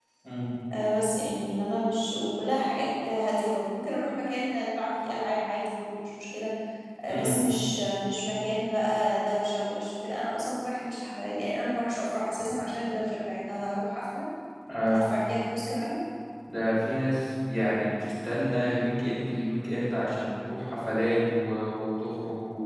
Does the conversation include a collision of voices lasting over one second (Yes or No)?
No